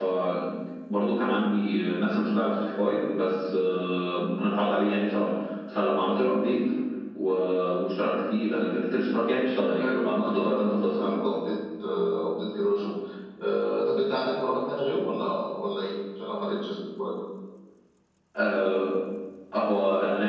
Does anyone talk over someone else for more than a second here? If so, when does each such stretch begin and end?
9.7-11.1

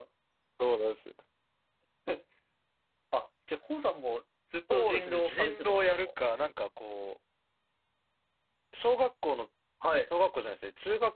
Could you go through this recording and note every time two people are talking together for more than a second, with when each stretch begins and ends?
4.7-6.1

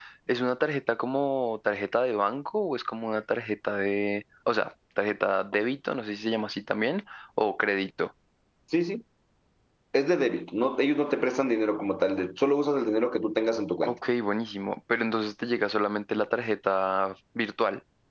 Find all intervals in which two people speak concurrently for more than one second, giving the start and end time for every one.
none

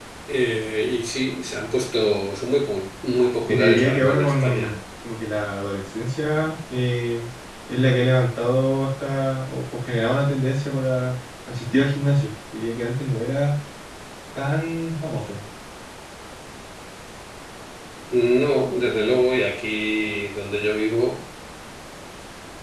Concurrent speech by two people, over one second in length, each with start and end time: 3.5-4.7

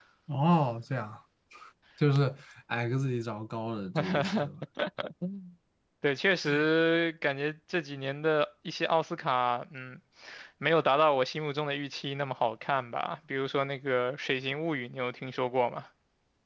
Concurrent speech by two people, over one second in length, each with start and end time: none

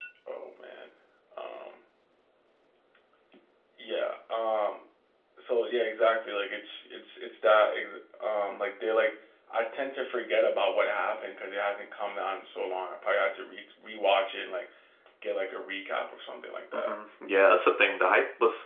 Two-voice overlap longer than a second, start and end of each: none

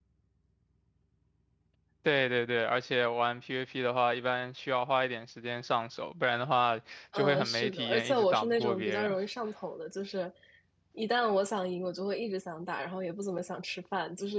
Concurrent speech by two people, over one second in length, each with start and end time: 7.2-9.2

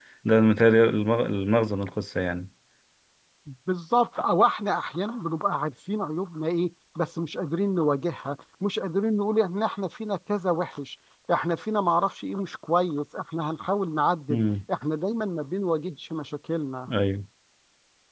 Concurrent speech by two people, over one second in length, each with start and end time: none

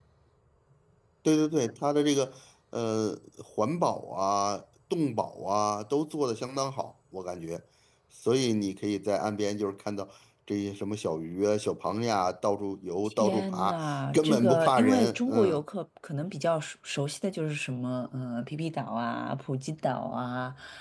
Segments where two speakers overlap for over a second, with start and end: 13.1-15.6

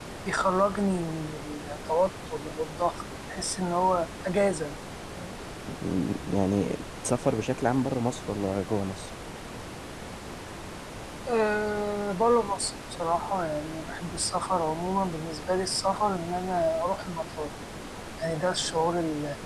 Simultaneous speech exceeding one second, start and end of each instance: none

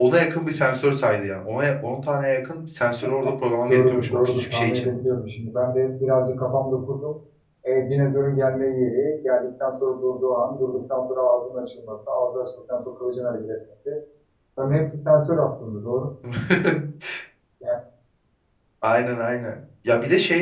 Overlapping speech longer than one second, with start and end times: 3.7-4.9

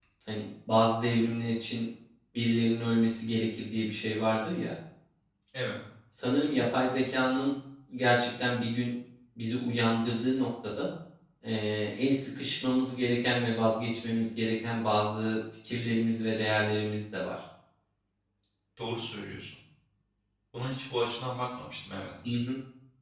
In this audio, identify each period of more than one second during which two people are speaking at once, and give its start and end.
none

